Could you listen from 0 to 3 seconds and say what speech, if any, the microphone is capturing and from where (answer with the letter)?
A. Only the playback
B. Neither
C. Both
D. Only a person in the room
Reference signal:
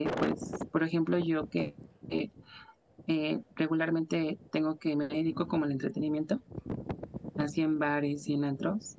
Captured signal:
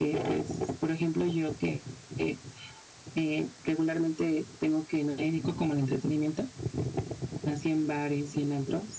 A